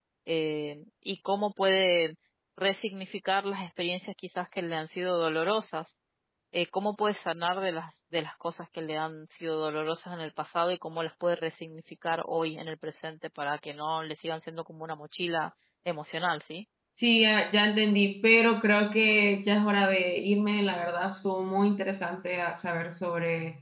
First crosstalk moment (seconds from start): none

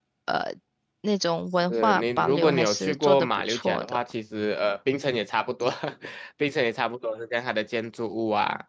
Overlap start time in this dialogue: 2 s

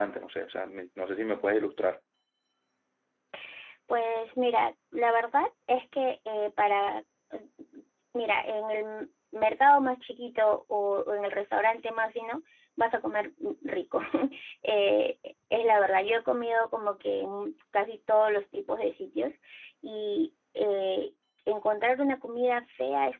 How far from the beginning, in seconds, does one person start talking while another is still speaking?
none

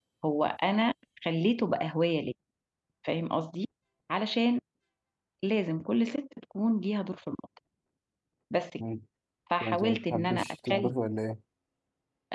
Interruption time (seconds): 10 s

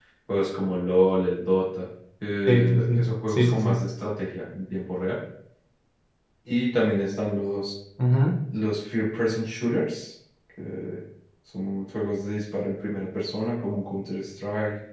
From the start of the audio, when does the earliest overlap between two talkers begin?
2 s

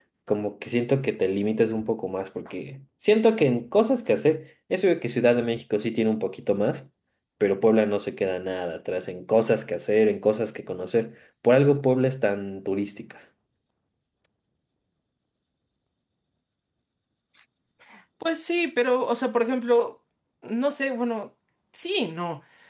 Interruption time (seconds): none

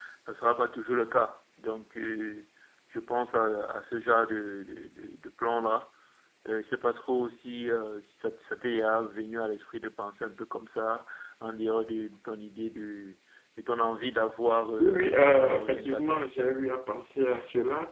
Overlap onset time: 15 s

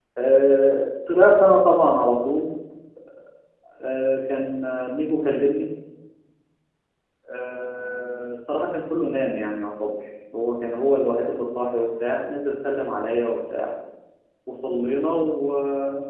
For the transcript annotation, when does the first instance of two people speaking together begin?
none

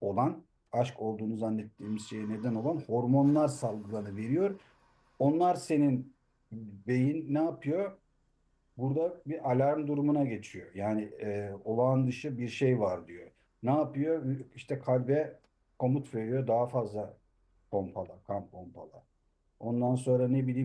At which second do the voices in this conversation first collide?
none

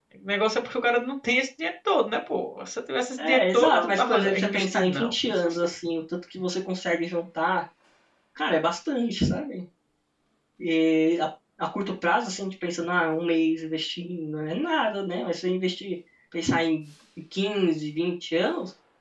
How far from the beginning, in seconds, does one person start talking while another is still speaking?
3 s

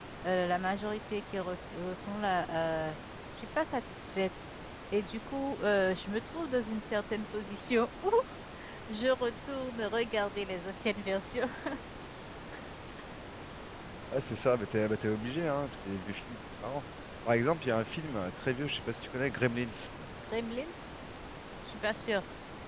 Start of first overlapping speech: none

